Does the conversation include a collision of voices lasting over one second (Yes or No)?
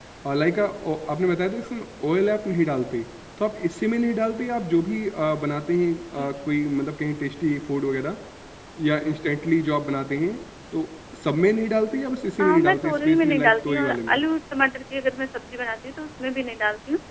Yes